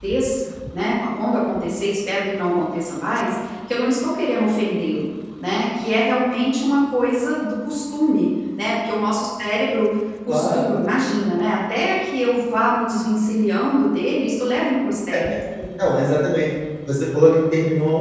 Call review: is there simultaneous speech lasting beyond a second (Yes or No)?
No